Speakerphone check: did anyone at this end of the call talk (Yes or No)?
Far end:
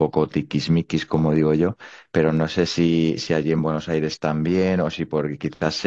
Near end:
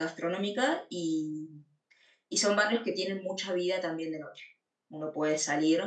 Yes